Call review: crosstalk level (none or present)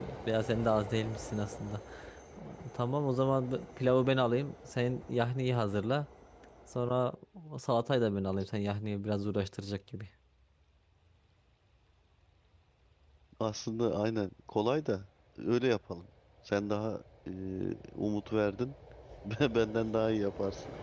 none